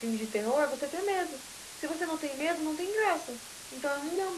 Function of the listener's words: taking over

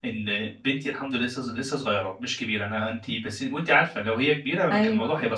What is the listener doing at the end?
listening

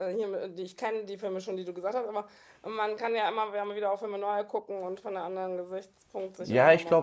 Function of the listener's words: taking over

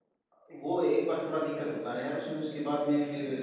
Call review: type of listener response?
listening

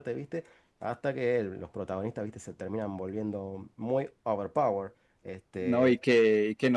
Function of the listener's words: taking over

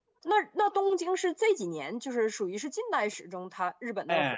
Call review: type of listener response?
taking over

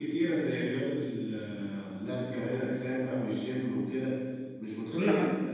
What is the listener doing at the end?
listening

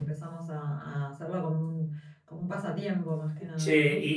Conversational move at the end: taking over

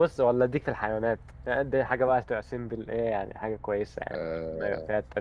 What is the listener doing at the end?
taking over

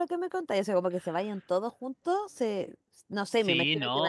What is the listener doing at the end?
taking over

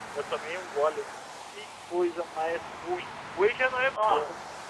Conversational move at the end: taking over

